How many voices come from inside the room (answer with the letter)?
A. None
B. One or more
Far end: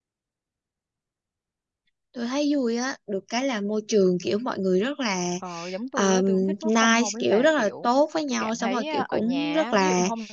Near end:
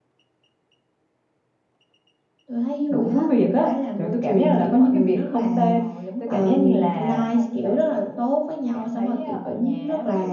B